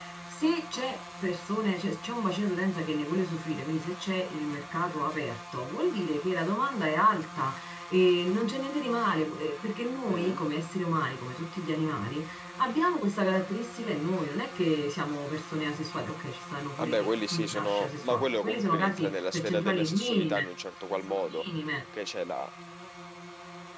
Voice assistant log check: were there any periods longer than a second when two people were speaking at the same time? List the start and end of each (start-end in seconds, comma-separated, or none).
16.8-20.5